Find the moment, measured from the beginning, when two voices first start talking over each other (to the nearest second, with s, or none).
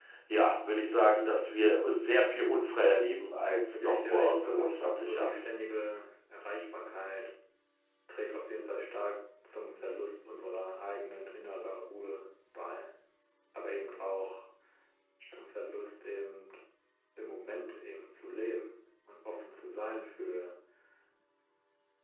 4 s